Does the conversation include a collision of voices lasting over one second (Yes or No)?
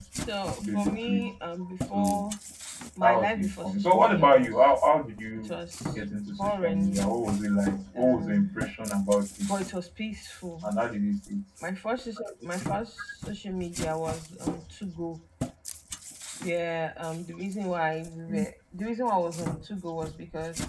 Yes